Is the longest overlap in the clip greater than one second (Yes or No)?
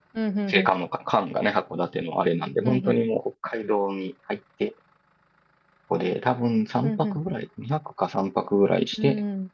No